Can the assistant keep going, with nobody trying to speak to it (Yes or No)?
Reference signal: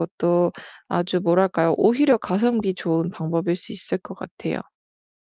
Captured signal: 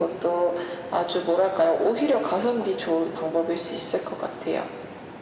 Yes